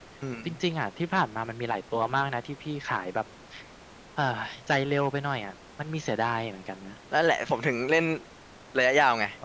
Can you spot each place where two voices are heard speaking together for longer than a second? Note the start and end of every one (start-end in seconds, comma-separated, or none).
none